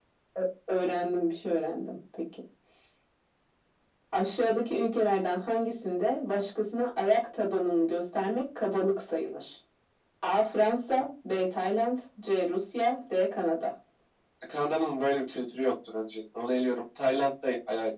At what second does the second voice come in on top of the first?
none

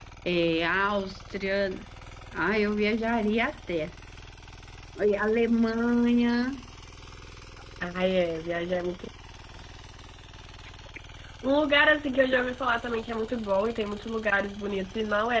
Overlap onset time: none

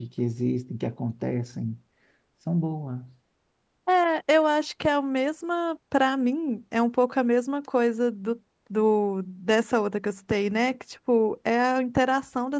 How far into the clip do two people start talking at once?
none

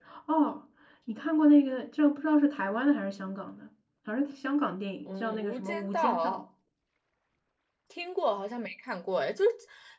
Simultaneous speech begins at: 5.0 s

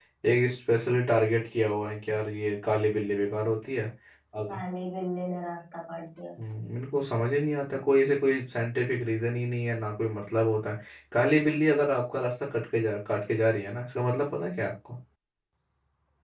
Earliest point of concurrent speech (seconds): none

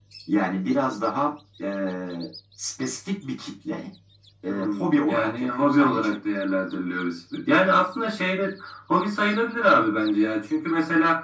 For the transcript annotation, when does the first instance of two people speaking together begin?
4.5 s

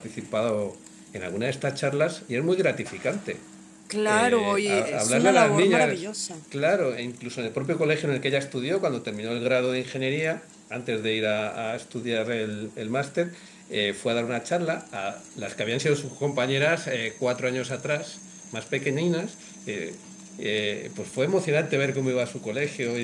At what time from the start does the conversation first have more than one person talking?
4.1 s

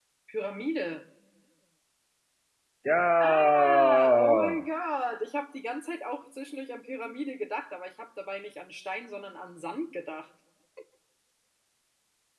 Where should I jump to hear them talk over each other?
3.2 s

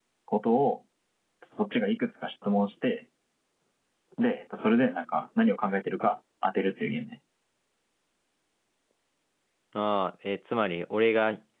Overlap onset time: none

